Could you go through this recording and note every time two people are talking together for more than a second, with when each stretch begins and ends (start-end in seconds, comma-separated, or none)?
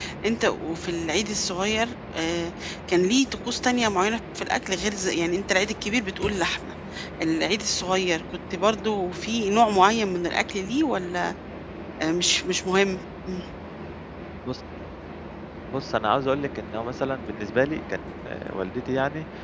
none